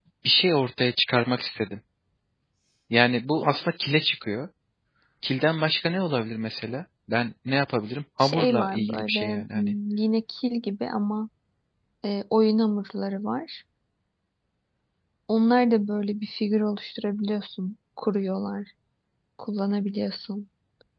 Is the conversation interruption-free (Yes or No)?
No